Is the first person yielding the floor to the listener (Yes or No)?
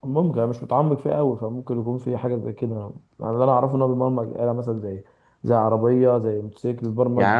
Yes